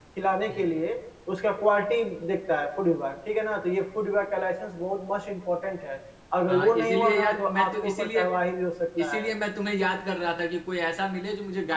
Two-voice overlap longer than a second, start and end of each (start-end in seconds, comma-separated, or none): 6.5-8.2